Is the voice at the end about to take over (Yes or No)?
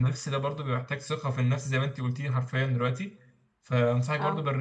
No